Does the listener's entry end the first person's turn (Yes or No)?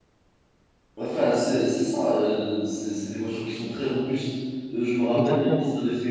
No